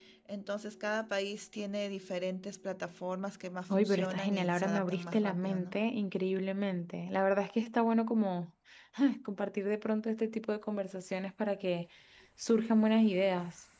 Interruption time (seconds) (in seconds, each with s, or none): 3.7 s